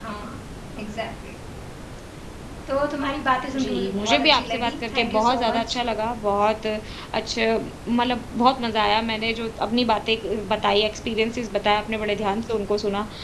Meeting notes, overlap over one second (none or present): present